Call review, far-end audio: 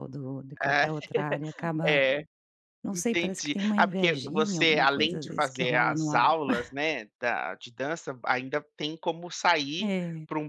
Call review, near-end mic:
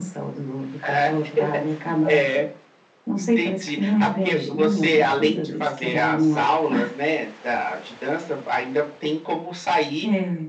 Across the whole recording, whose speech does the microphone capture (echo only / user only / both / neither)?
echo only